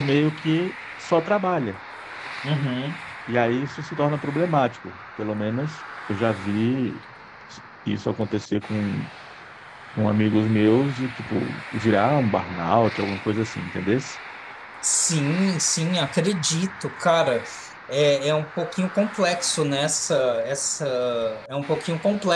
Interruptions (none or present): none